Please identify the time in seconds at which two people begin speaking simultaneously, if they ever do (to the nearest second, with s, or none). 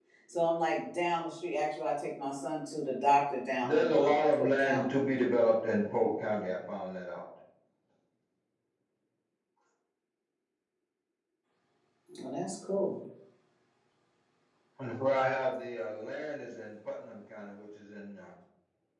4 s